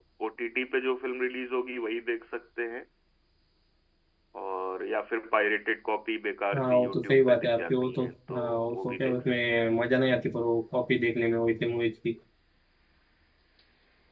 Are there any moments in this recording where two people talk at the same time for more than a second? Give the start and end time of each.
6.5-9.8

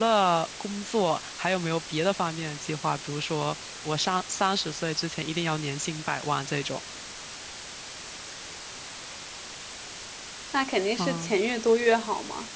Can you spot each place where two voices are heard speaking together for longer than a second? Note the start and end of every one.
none

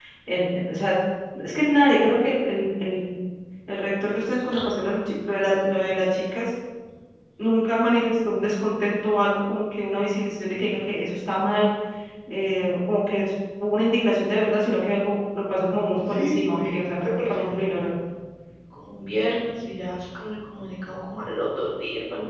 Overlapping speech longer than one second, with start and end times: 16.1-17.7

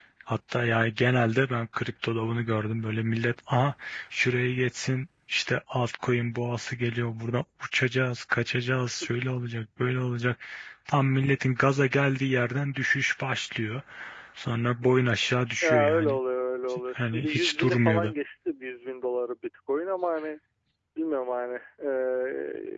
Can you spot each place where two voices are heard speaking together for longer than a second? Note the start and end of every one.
16.9-18.1

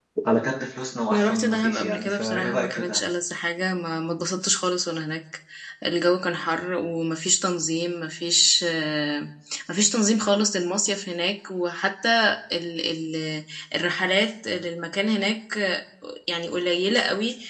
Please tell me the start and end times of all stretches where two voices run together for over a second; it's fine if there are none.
1.1-3.0

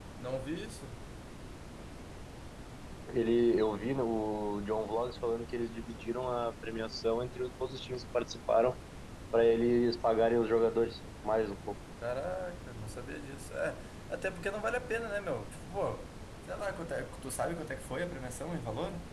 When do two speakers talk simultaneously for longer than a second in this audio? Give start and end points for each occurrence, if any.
none

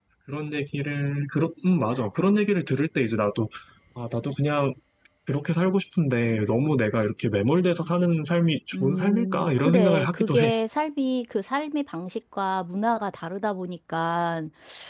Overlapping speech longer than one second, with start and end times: 8.7-10.5

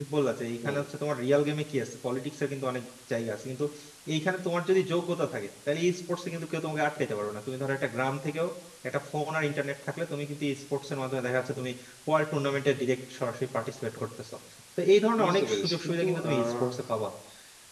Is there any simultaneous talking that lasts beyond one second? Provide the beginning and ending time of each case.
15.2-16.7

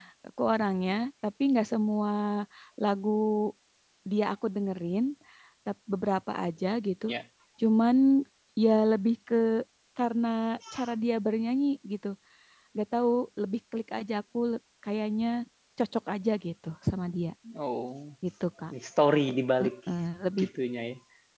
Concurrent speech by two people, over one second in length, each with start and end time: none

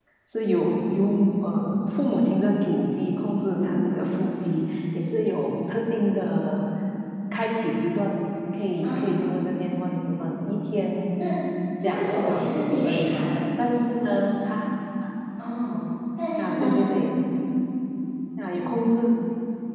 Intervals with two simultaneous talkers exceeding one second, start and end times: 11.8-13.2

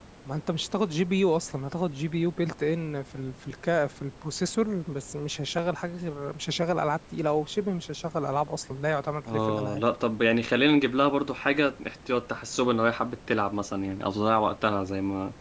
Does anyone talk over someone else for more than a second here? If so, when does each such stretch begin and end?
none

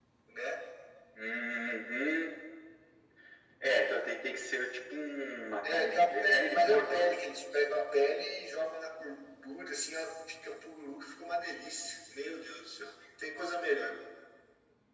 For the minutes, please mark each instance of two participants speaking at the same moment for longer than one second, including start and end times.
5.6-7.2

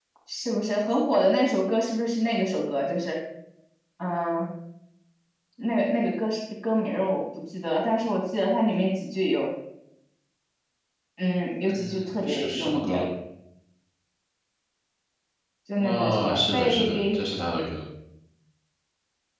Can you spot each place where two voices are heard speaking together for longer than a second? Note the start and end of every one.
11.7-13.0, 15.8-17.2

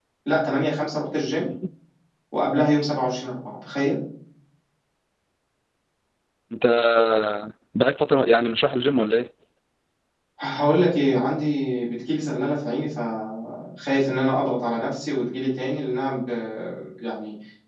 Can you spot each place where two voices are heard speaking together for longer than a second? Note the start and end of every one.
none

